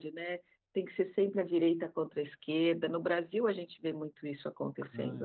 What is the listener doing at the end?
taking over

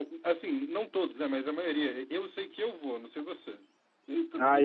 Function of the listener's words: taking over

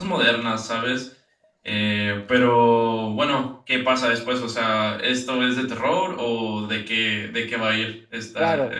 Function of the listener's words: taking over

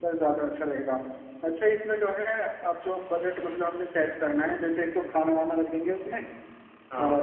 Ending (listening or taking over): listening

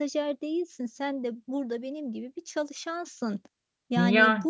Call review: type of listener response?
listening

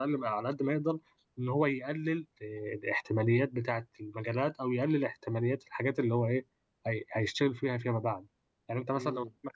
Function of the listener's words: listening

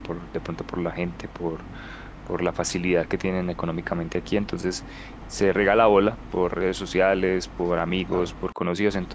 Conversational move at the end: listening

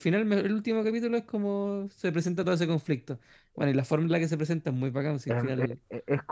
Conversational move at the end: taking over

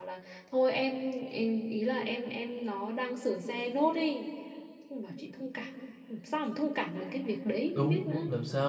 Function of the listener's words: taking over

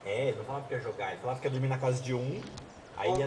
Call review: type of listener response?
listening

